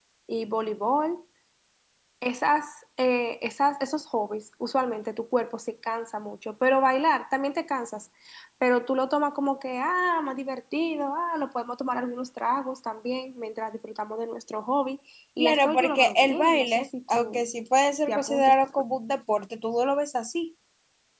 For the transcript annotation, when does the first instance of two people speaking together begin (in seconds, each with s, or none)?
15.4 s